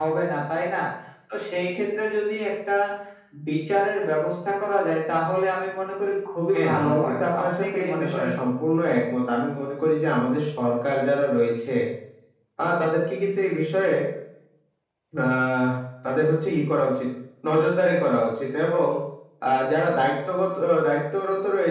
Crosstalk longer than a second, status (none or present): present